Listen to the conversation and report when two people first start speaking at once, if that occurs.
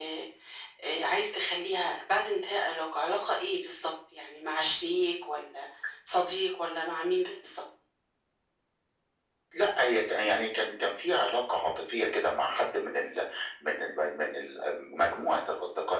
none

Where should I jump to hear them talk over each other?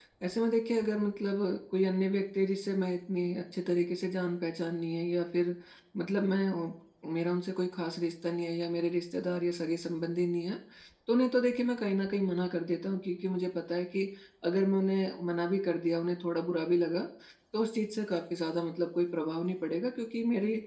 none

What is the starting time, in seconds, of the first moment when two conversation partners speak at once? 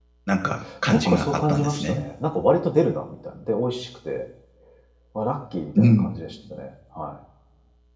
0.9 s

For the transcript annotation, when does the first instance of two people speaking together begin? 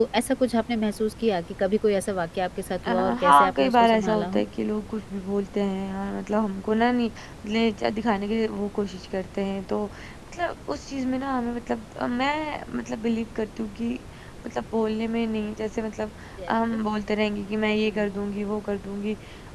2.9 s

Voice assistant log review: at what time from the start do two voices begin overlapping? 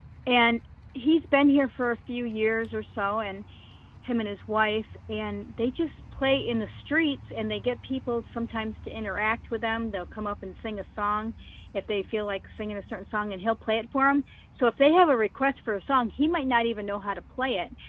none

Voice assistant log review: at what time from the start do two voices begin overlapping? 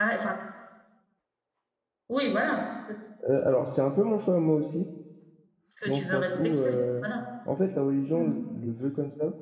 5.8 s

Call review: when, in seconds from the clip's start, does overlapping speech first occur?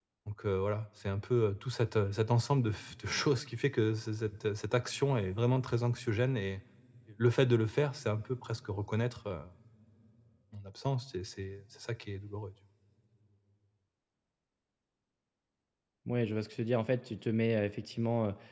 none

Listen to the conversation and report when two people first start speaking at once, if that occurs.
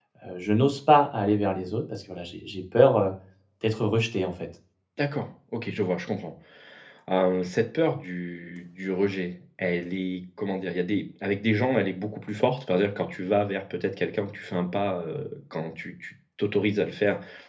none

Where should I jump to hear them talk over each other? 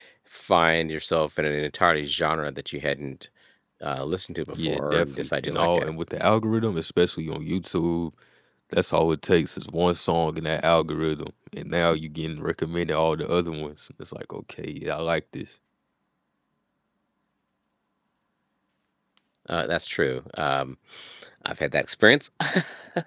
4.5 s

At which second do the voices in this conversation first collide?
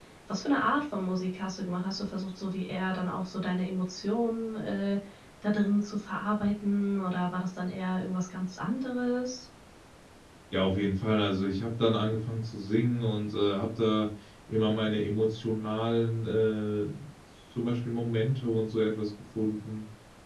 none

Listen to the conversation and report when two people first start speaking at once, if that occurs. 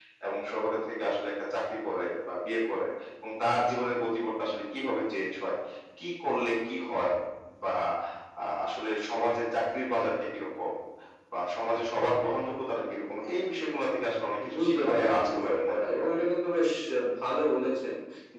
14.4 s

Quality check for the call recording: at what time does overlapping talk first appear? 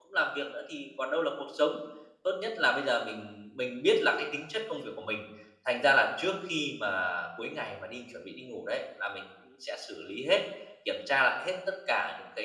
none

